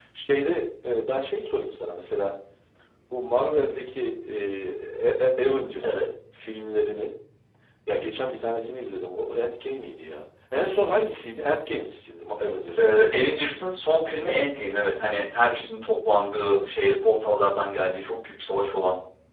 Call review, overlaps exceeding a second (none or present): none